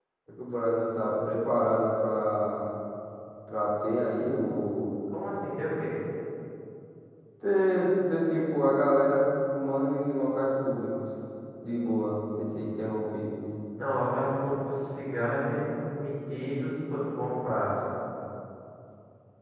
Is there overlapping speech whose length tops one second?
No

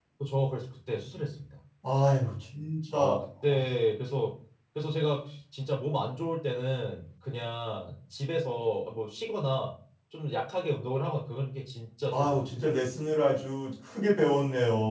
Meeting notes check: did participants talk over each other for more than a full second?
No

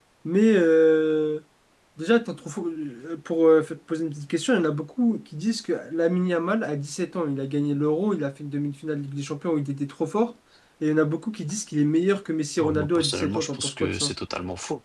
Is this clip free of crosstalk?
No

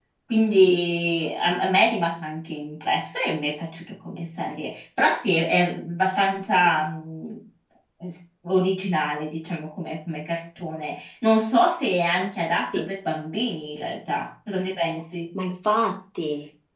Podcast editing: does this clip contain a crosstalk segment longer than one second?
No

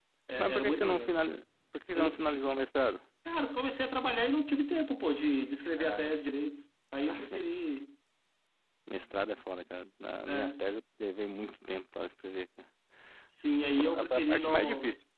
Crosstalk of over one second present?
Yes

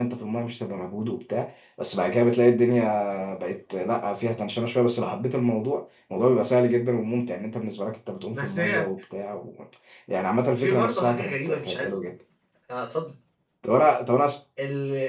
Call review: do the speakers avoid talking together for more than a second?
No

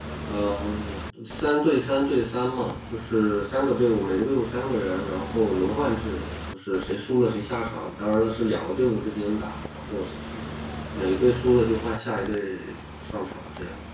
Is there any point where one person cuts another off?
No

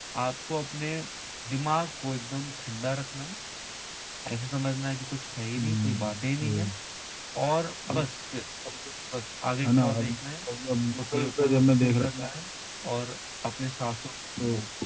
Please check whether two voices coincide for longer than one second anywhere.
Yes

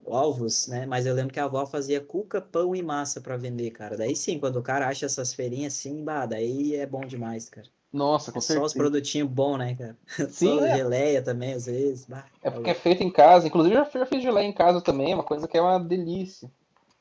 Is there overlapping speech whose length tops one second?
No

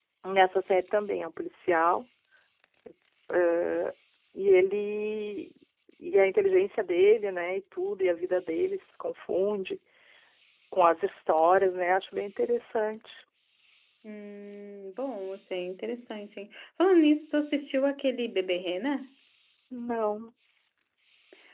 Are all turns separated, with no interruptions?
Yes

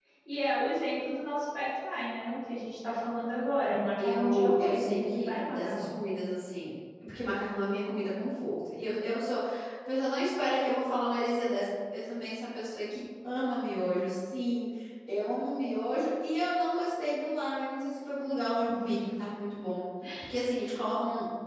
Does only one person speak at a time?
No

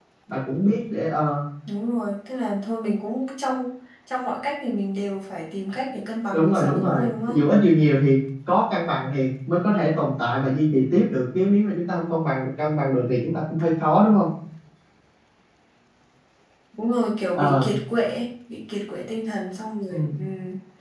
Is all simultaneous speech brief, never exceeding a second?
No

